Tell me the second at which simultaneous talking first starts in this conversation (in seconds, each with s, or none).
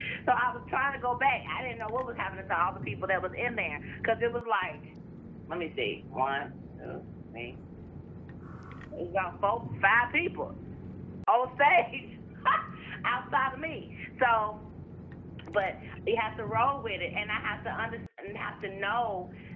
none